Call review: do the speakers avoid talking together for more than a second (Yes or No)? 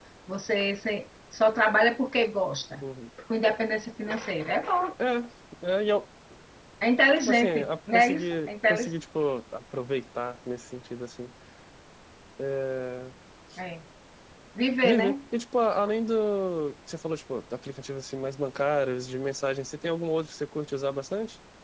No